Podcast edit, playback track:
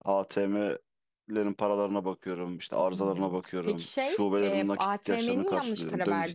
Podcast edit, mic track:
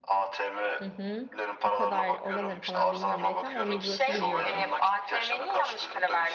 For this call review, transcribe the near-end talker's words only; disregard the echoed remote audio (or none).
Hı hı. O kadar oraları falan bilmiyorum belki ama o Migros'u biliyorum.